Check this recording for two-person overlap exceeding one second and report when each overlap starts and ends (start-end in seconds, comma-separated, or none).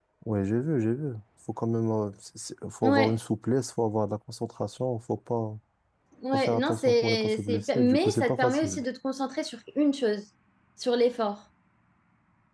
6.3-8.8